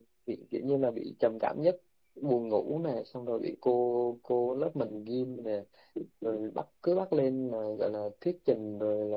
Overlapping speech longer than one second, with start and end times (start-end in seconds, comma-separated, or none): none